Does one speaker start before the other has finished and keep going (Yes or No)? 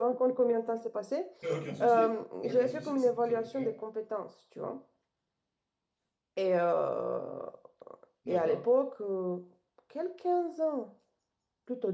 Yes